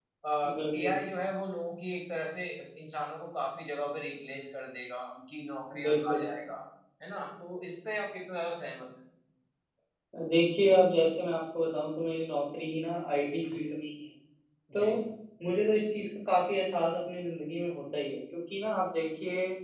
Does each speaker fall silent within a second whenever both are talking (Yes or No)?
Yes